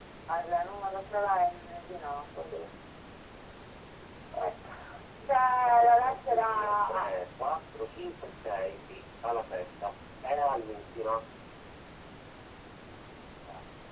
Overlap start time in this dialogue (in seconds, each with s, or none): 5.8 s